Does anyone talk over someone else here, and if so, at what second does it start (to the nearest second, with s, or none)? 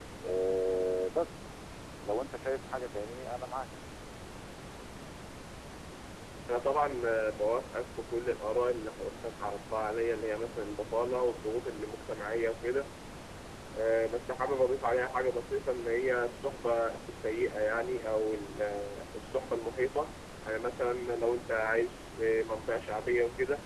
none